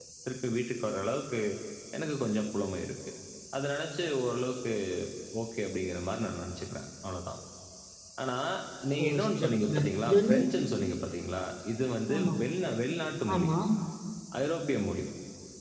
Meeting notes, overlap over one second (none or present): present